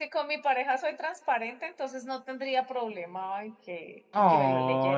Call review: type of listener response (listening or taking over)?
taking over